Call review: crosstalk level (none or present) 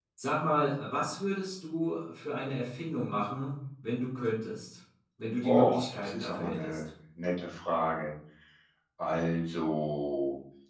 present